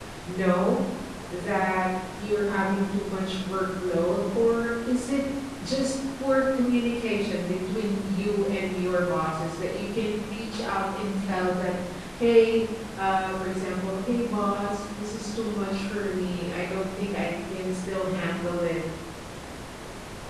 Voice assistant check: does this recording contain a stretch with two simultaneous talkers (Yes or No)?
No